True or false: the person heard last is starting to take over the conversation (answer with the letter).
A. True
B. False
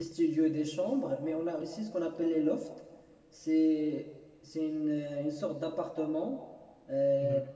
B